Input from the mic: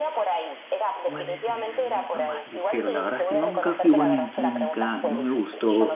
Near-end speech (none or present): present